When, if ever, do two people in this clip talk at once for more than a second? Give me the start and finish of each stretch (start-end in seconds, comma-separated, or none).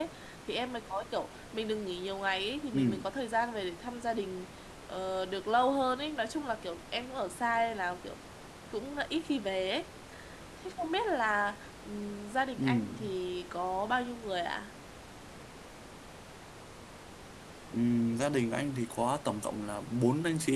none